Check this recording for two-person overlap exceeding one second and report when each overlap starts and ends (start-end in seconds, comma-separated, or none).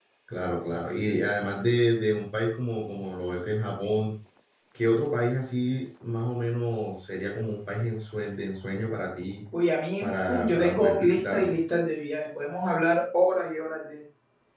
10.0-11.6